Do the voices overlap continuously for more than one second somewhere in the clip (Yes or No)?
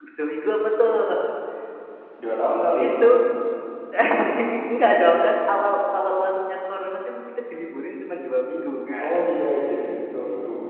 No